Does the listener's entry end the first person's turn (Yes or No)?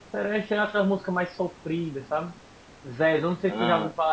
No